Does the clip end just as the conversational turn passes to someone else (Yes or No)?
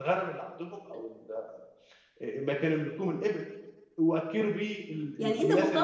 Yes